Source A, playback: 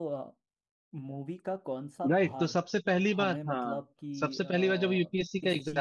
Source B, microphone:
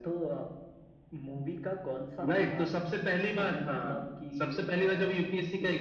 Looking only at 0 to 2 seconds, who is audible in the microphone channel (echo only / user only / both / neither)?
echo only